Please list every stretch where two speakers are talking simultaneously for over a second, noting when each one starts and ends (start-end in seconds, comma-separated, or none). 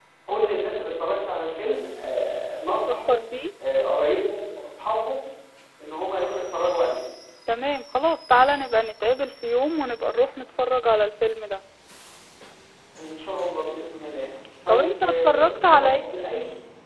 14.7-16.0